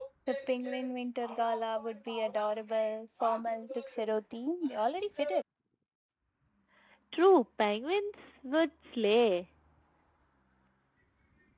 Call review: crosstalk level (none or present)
none